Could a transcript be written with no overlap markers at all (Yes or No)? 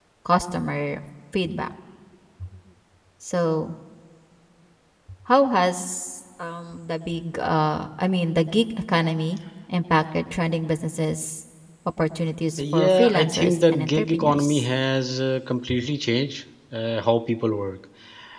No